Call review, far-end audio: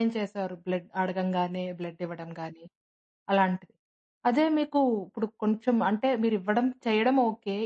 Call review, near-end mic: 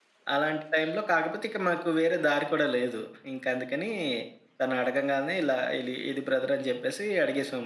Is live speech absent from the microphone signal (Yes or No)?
No